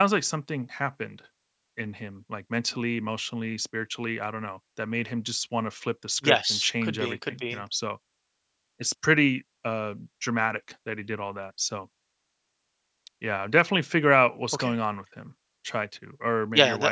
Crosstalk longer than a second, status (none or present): present